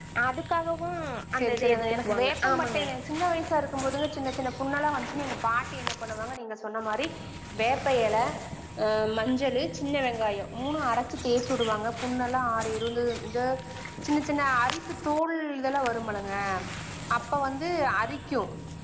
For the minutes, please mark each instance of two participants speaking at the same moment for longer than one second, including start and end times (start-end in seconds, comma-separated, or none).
1.4-2.8